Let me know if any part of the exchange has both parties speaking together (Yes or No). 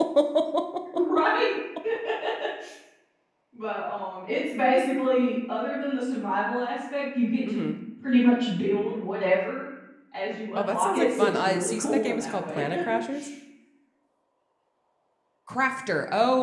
Yes